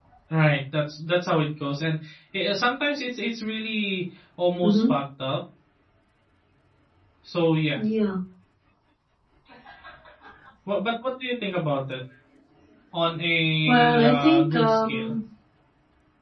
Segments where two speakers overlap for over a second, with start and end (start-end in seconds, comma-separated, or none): 13.7-15.1